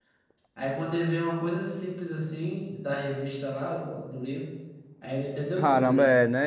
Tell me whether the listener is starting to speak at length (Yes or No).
Yes